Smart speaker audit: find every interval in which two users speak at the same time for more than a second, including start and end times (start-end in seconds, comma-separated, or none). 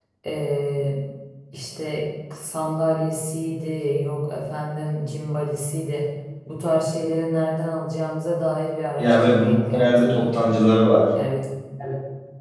9.0-10.4